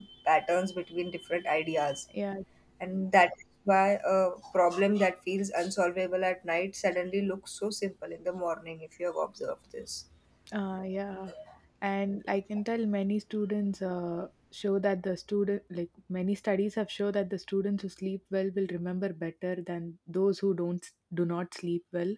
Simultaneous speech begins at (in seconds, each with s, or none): none